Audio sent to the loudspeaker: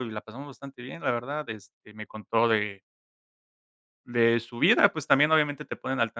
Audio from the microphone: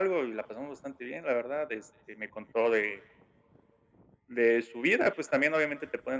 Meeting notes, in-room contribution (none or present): none